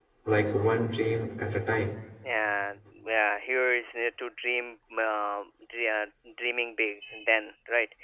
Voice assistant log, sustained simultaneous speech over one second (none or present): none